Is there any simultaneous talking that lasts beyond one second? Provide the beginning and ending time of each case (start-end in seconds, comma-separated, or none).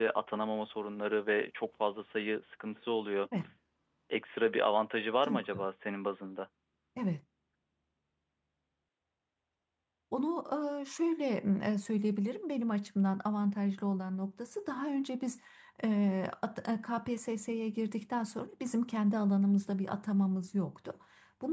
none